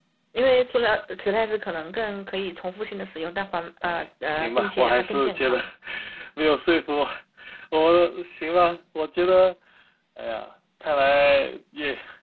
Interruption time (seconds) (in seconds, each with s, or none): 3.8 s